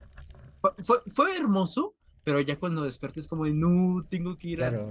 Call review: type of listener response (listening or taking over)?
taking over